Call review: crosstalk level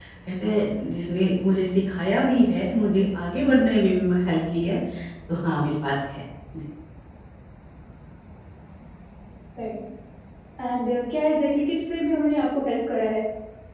none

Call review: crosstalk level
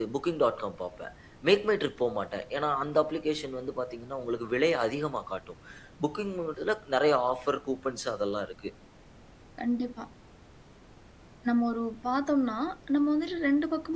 none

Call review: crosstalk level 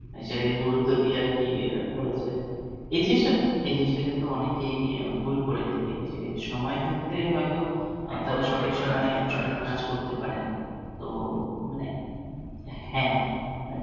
present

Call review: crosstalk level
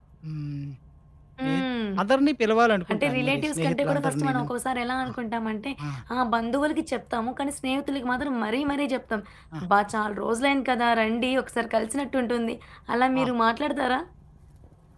present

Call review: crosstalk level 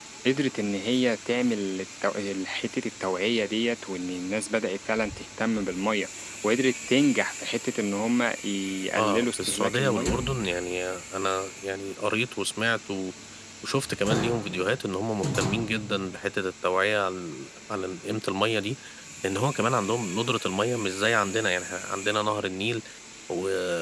present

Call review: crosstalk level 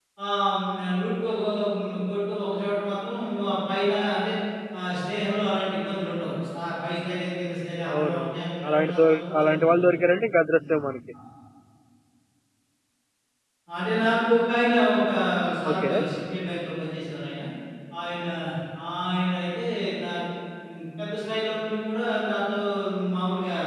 present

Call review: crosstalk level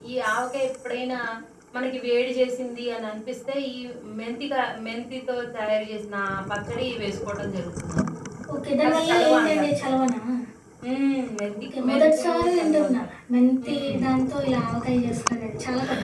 present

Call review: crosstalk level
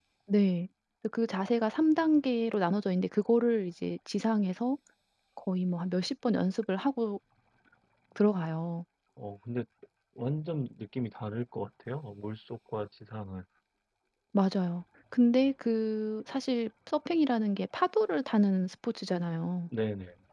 none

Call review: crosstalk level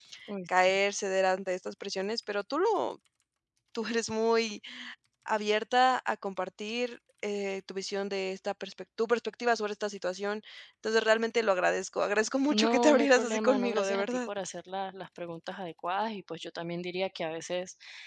present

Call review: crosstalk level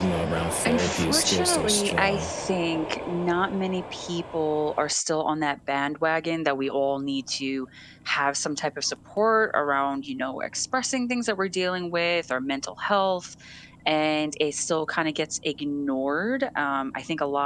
present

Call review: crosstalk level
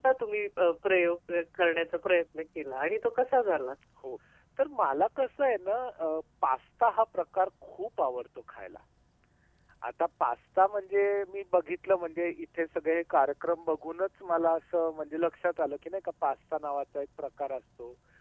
none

